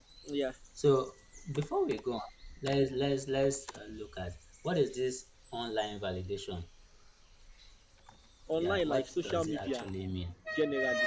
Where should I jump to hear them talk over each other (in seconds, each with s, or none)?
8.6 s